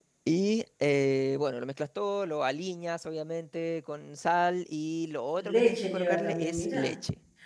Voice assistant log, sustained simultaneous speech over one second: present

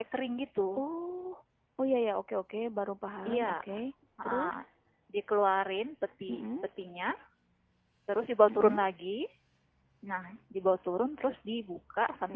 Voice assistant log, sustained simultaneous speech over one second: none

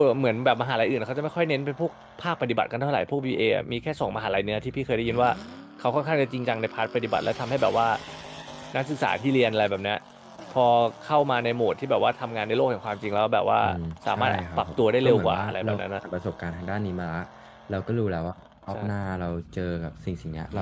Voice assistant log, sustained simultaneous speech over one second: present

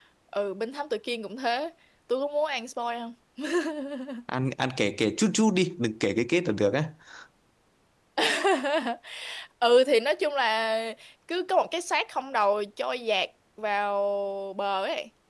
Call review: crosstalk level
none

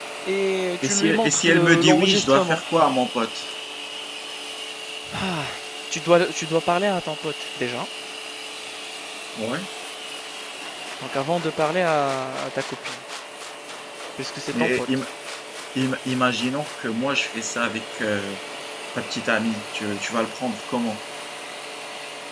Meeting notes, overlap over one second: present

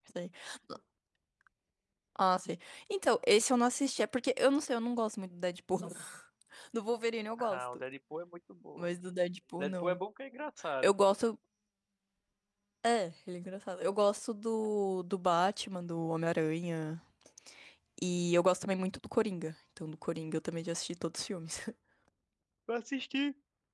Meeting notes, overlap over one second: none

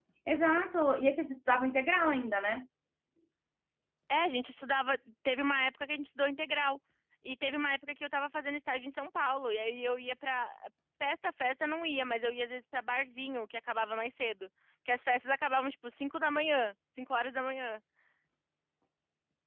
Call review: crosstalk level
none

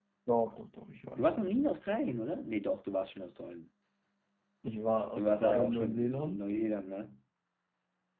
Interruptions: present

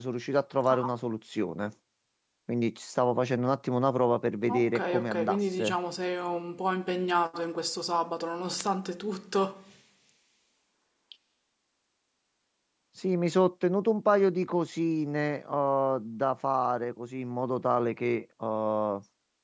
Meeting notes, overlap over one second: present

